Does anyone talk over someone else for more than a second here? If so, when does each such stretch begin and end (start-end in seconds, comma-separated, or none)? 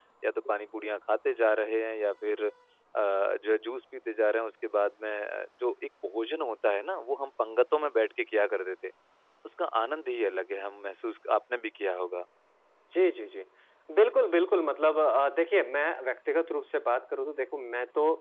none